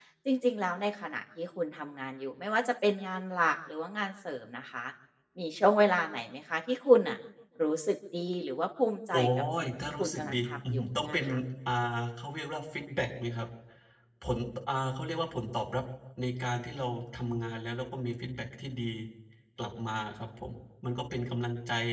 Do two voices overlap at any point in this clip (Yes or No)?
Yes